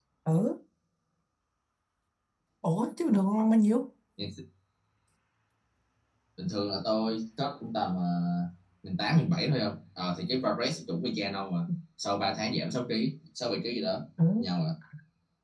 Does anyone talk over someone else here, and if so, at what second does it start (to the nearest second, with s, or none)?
none